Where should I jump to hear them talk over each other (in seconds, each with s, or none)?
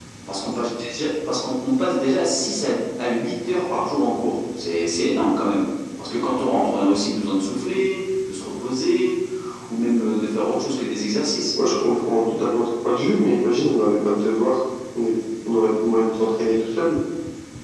none